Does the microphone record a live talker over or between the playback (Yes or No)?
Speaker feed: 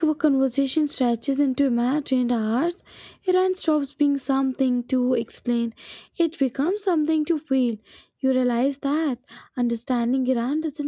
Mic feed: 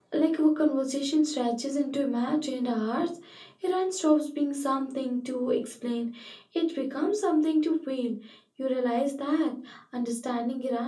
No